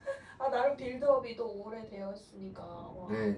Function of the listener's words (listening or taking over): taking over